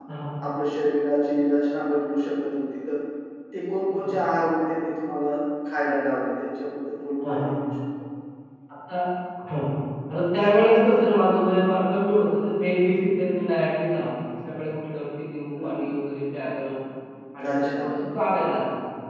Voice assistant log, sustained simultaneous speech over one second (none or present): none